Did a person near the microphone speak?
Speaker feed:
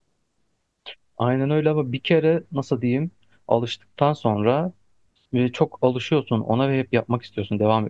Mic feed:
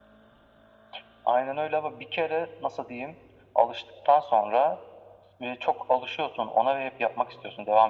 No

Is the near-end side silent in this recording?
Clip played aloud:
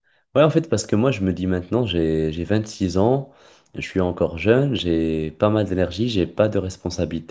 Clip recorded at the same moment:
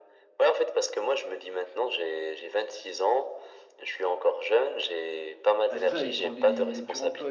No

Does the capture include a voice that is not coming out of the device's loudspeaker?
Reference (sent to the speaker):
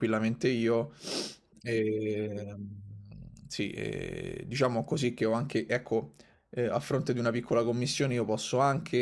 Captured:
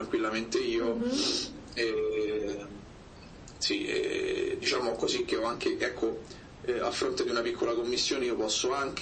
Yes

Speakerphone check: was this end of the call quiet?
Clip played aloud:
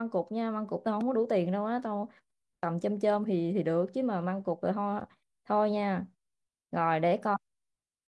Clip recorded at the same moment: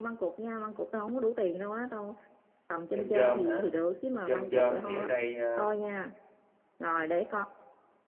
No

